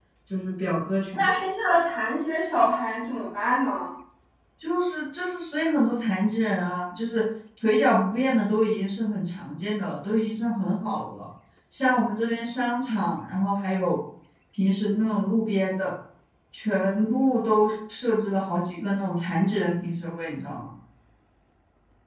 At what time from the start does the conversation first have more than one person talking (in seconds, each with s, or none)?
none